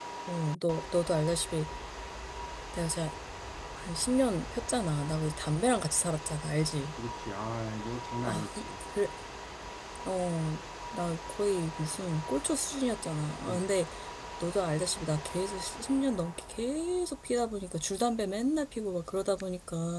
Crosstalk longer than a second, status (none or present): none